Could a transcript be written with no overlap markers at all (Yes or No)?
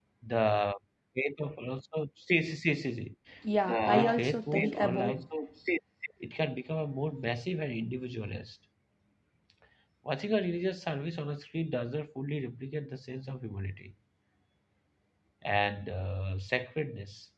No